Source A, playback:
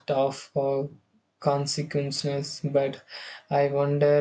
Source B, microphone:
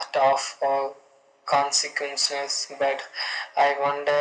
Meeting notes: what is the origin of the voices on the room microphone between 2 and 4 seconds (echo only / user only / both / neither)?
echo only